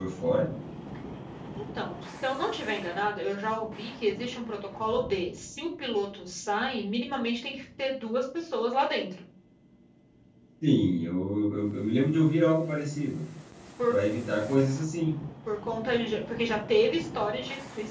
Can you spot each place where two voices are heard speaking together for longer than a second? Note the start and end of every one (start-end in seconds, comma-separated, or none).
none